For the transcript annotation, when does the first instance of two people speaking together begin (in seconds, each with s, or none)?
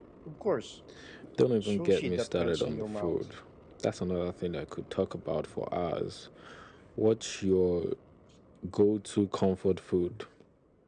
1.6 s